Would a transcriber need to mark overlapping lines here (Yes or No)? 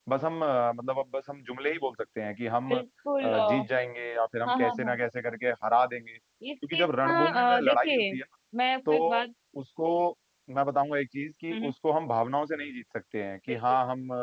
Yes